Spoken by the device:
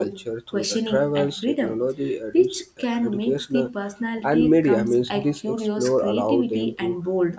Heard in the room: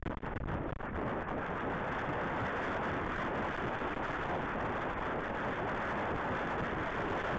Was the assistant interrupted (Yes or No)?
No